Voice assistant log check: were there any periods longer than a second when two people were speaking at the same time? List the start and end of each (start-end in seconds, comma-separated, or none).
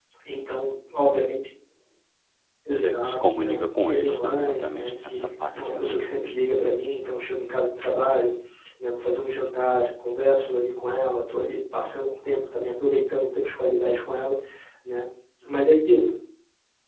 2.7-6.0